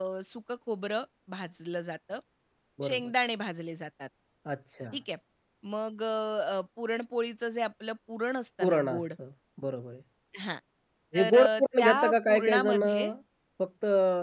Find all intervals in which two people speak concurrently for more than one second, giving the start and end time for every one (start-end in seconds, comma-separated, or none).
11.2-13.1